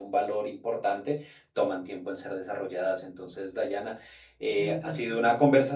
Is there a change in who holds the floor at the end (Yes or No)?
No